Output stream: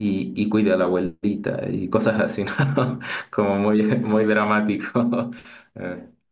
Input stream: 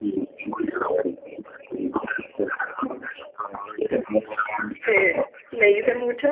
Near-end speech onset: 4.8 s

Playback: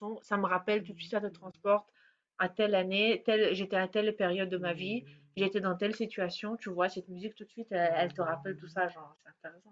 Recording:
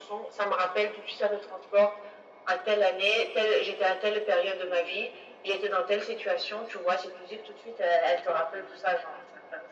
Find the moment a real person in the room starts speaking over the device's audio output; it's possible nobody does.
none

